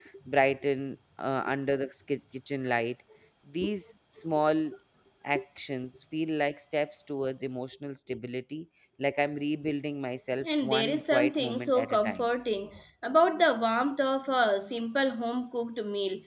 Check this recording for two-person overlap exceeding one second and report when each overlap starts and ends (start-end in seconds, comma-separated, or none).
10.4-12.3